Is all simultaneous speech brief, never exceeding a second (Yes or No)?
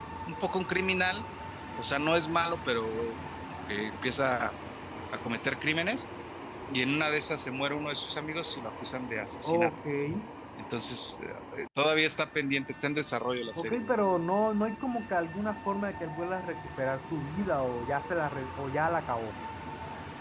Yes